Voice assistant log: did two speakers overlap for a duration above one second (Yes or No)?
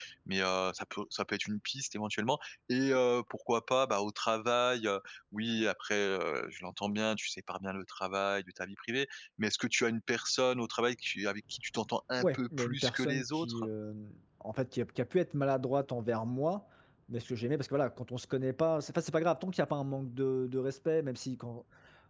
Yes